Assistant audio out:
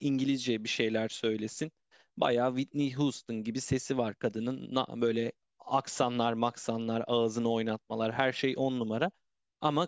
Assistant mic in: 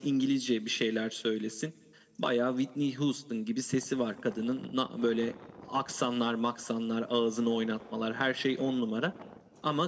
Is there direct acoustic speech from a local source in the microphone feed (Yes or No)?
No